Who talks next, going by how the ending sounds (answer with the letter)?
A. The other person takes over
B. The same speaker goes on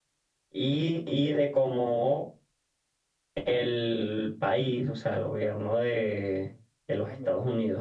B